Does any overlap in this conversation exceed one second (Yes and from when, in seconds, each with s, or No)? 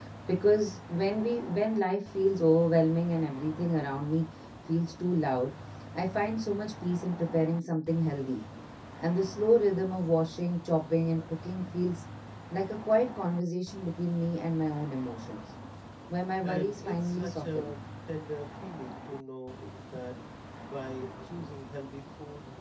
Yes, from 16.4 s